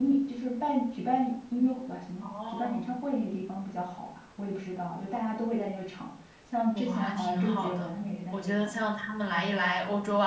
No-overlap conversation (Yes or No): No